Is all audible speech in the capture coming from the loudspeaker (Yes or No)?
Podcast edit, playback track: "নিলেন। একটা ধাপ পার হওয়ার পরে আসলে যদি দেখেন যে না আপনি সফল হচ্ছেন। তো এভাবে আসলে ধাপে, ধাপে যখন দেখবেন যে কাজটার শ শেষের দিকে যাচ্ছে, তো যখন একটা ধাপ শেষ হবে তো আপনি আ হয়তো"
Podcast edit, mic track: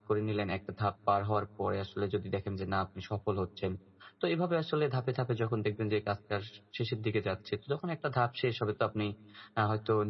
Yes